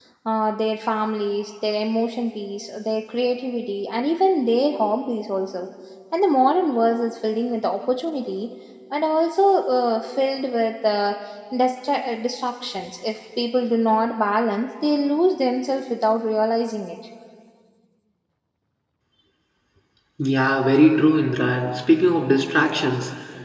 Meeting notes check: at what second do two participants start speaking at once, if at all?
none

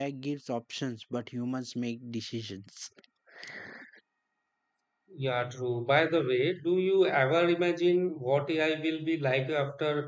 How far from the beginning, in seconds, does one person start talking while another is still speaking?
none

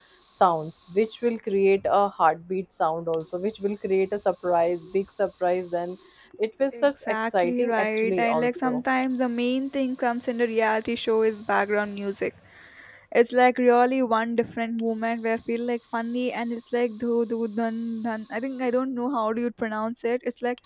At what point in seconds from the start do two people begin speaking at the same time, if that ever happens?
6.7 s

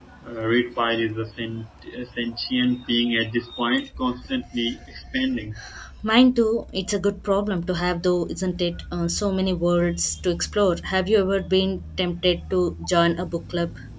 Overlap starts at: none

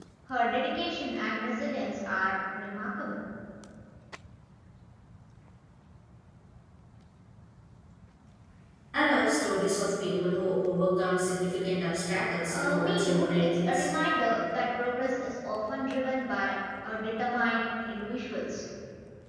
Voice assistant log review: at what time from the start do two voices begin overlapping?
12.5 s

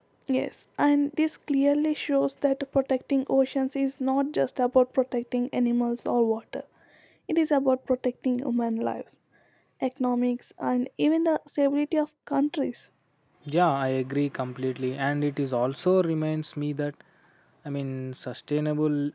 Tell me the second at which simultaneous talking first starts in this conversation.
none

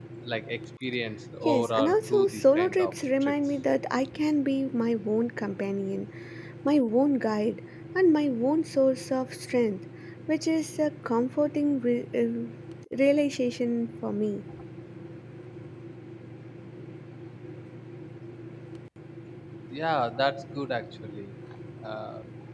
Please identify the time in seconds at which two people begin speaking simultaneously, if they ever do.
1.4 s

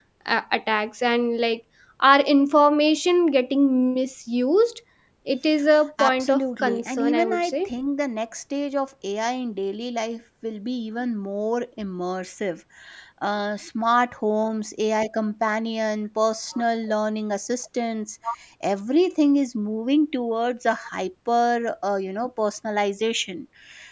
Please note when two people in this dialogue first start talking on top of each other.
6.0 s

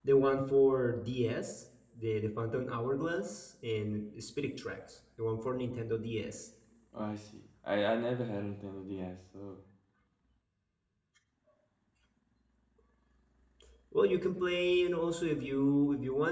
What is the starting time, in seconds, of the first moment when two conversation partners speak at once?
none

